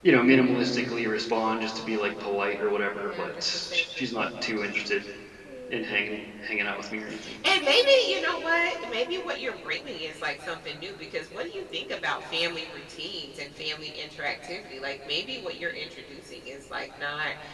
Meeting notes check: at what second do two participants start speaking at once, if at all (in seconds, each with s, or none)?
2.9 s